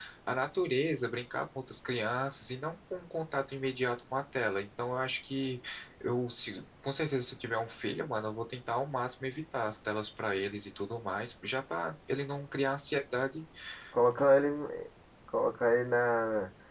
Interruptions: none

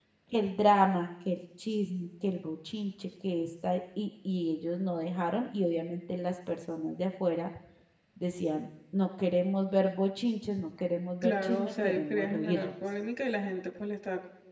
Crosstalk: present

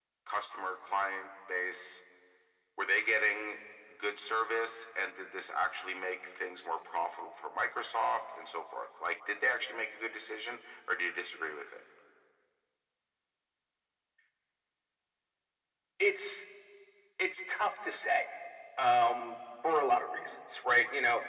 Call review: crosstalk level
none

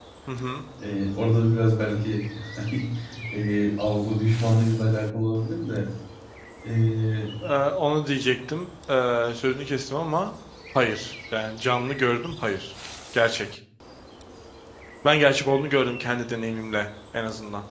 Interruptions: none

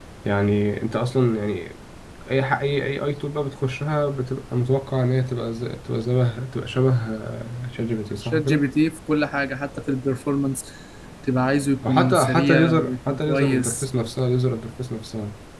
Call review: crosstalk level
present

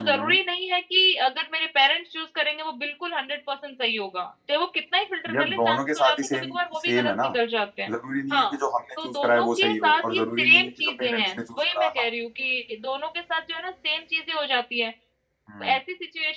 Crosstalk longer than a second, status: present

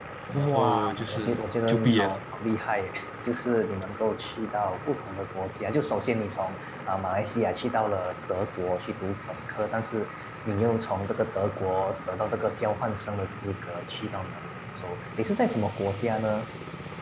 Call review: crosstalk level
present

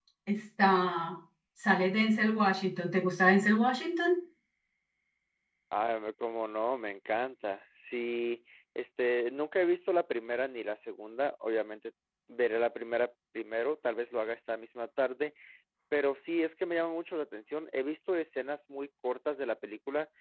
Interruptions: none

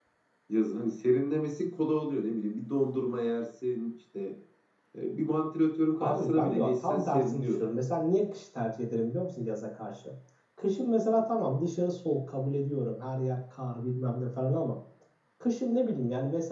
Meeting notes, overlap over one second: present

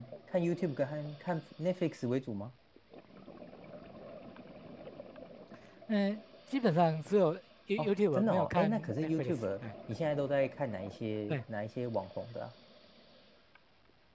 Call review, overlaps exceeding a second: present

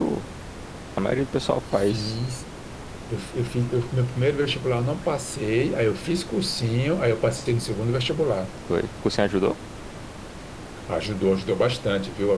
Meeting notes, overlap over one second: none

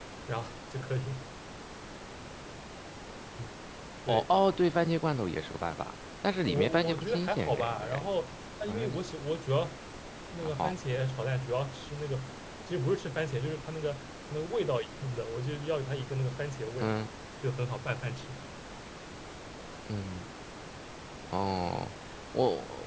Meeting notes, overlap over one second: present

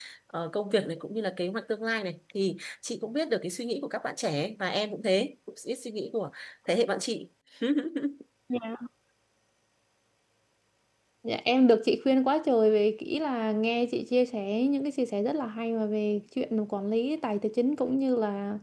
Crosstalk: none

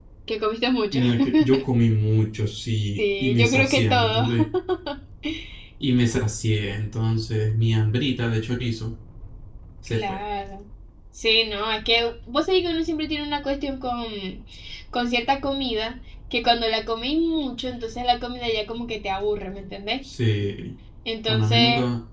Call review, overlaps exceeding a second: present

